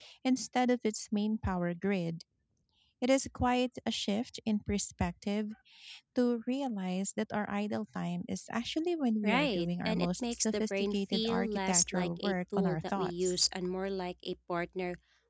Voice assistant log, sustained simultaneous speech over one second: present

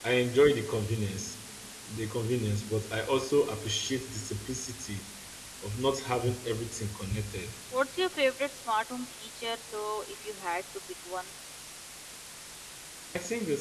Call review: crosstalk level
none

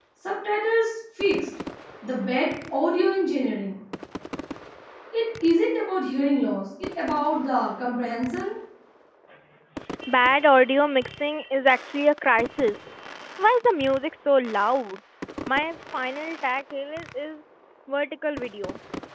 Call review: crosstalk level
none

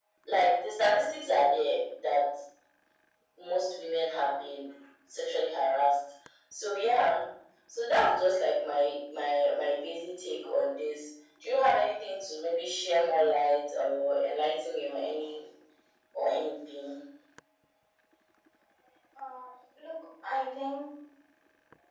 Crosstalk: none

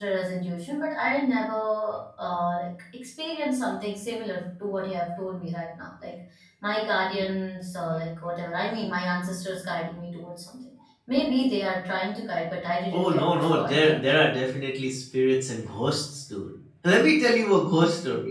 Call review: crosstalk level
present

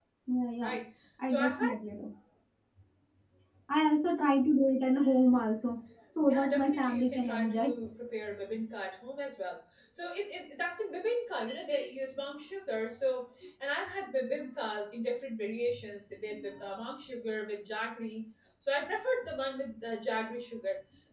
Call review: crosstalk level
present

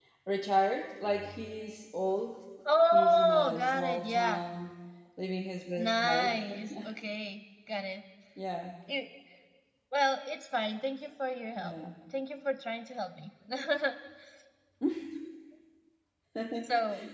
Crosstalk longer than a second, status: present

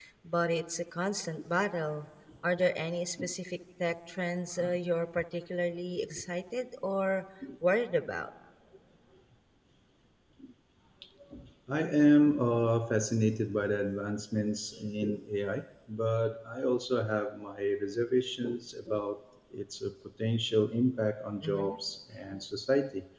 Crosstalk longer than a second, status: none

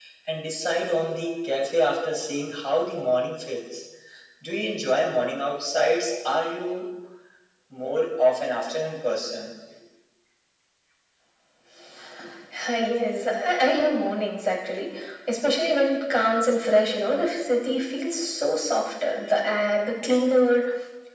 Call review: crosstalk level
none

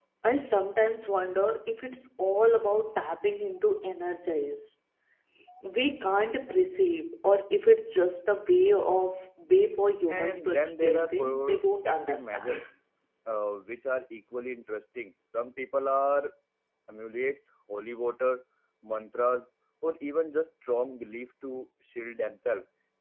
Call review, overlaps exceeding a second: present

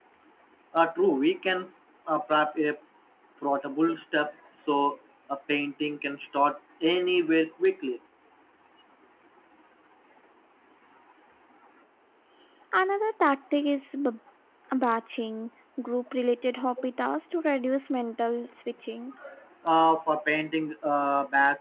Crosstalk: none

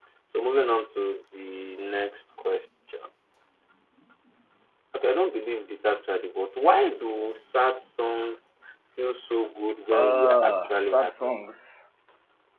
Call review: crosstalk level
present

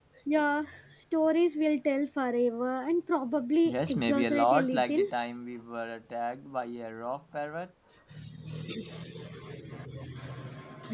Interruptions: present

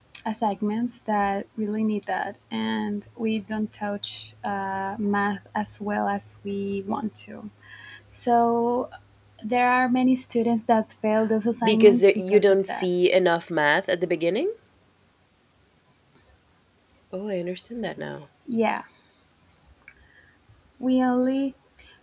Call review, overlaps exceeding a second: present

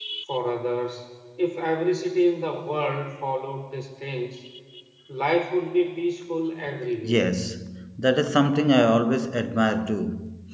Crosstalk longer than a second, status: none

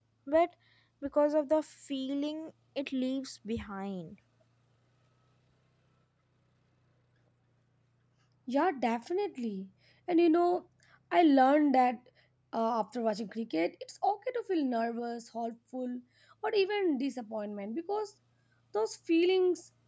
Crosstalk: none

